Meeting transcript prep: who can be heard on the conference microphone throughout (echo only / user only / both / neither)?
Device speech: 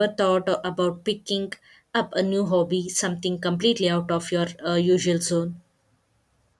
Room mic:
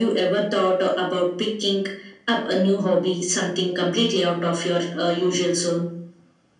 echo only